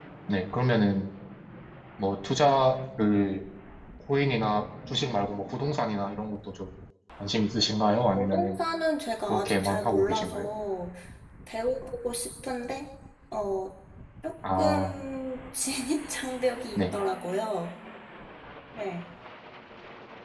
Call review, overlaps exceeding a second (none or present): present